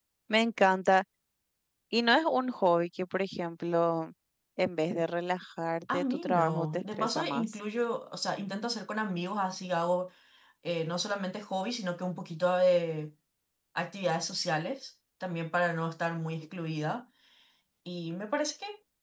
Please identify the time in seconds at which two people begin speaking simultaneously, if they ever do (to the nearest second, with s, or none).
6 s